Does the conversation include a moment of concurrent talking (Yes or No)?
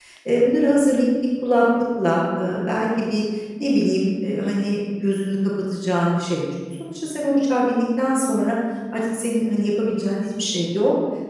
No